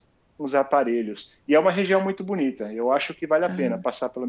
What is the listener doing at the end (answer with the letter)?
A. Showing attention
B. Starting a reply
A